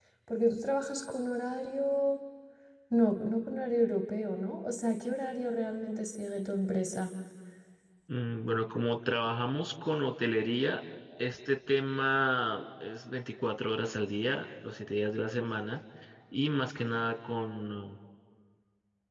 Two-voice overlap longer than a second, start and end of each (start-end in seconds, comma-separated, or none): none